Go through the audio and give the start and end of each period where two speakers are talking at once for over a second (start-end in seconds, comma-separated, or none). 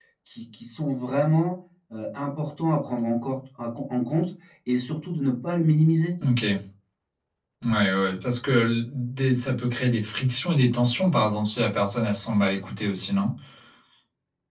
none